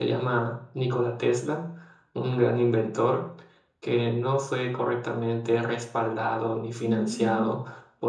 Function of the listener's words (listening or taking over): listening